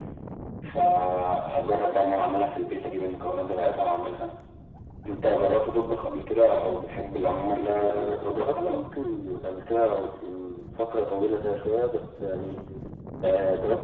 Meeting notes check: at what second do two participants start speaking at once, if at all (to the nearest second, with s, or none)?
8 s